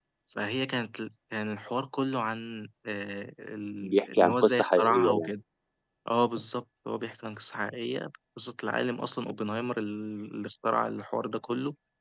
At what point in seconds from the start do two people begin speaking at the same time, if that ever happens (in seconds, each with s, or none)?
3.8 s